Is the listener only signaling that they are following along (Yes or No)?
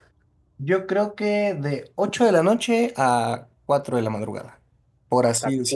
No